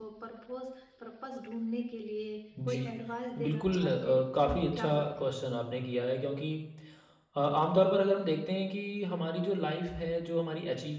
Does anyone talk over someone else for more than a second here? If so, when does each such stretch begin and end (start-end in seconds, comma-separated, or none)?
3.5-5.3